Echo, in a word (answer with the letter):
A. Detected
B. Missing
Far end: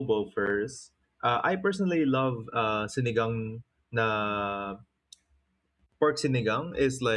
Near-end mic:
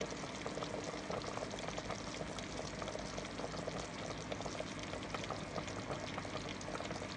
B